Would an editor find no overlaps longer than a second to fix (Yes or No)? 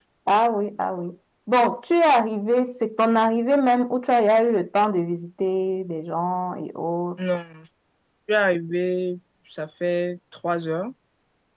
Yes